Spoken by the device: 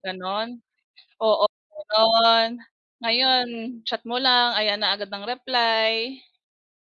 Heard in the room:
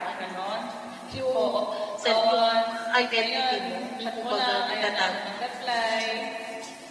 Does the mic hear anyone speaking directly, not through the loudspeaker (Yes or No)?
Yes